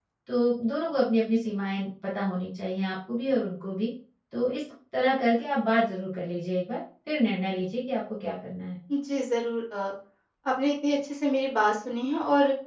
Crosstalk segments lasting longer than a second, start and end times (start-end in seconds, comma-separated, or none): none